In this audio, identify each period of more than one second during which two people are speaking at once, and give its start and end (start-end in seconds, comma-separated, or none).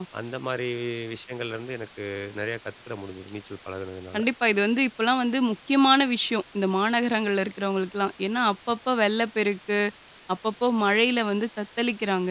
none